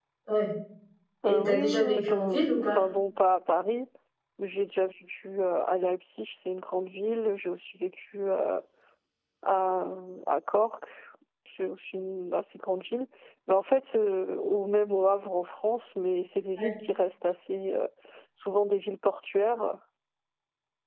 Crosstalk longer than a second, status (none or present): present